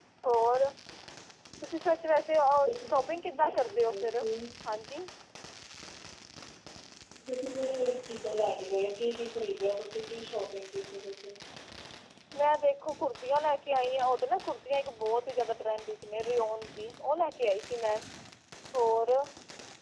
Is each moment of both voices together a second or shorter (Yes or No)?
No